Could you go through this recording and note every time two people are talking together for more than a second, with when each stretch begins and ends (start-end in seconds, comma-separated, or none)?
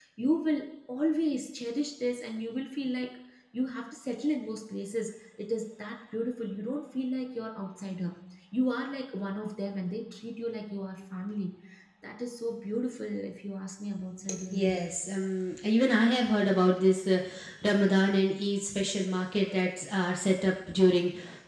none